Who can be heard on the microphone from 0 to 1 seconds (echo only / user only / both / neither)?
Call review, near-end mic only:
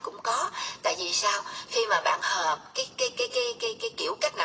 echo only